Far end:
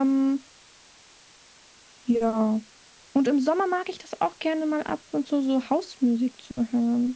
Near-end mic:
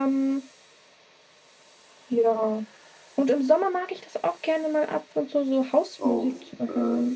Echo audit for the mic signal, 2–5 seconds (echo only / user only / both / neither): echo only